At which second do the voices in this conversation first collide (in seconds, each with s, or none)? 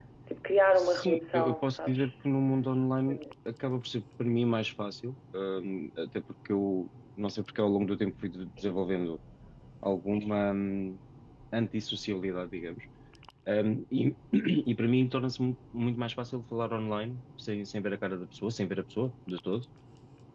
0.8 s